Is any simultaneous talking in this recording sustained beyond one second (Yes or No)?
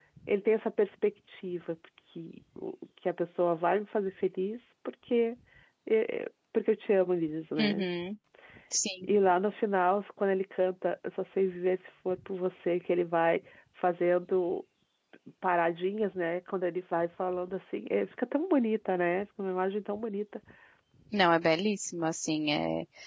No